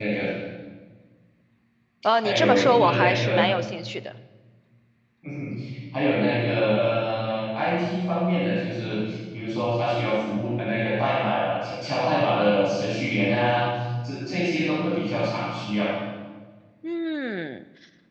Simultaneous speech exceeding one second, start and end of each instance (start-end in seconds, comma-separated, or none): 2.2-3.4